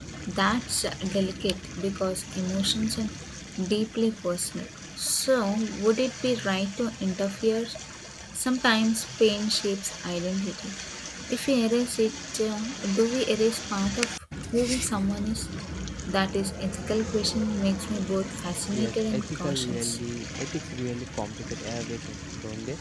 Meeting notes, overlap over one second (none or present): present